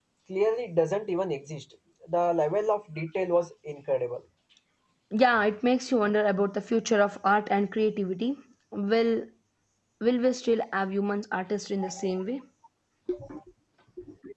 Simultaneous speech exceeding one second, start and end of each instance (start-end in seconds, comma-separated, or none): none